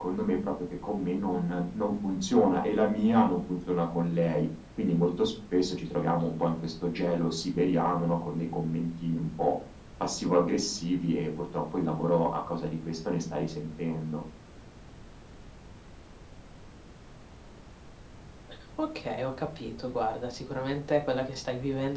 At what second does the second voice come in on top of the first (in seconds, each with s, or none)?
none